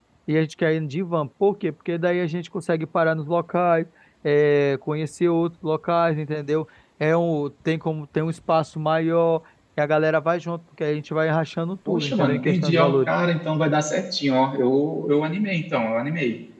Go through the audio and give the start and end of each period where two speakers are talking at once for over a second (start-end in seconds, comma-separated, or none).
11.9-13.1